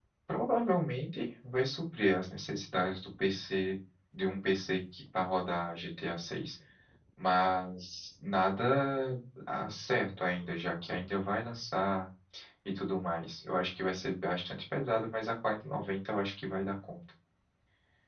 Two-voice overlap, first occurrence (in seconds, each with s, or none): none